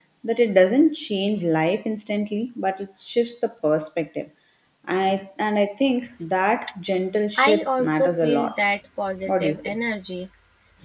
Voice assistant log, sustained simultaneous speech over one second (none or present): present